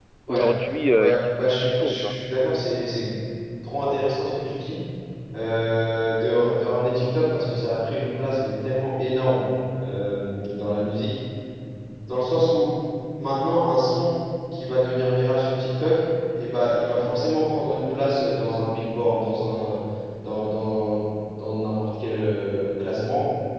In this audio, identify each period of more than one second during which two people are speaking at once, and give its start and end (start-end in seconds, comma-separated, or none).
0.9-2.2